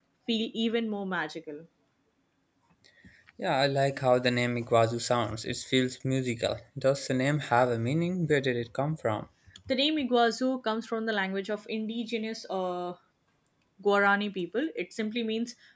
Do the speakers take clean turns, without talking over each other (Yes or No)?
Yes